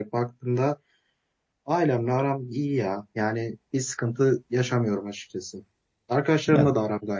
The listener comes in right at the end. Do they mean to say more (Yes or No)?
No